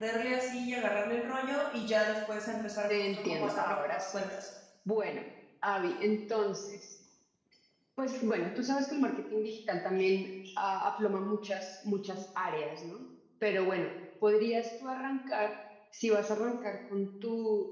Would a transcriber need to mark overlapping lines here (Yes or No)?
Yes